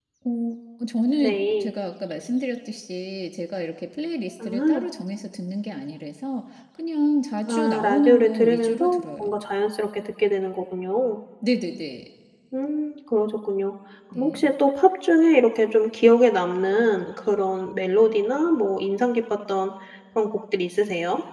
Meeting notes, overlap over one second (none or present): present